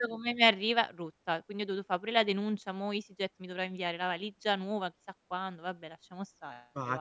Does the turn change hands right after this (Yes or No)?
Yes